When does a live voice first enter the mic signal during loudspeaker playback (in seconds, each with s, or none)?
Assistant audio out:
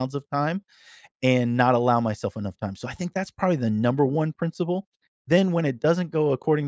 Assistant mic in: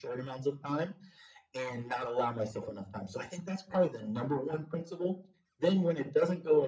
none